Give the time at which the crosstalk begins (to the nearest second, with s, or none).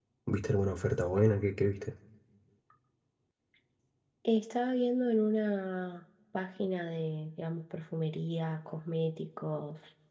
none